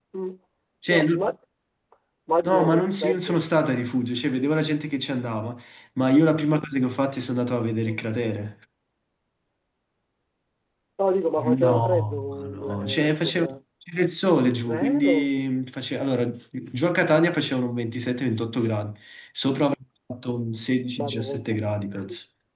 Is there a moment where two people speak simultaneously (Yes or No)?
Yes